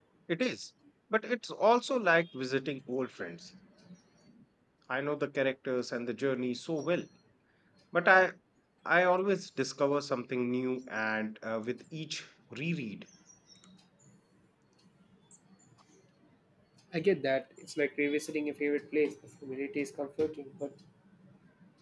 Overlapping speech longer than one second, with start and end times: none

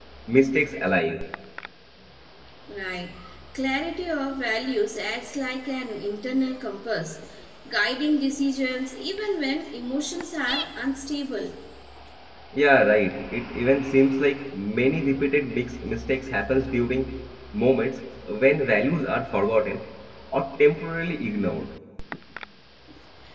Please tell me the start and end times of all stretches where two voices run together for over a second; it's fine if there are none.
none

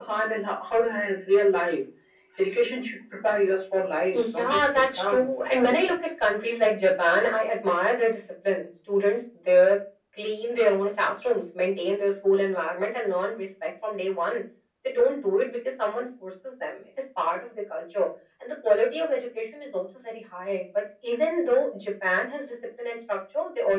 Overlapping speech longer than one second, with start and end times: 4.1-5.4

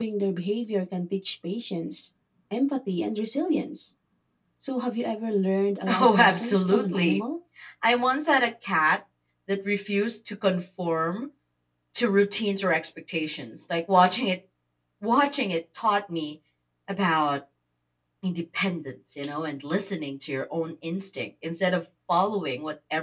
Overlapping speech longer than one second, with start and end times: 5.9-7.2

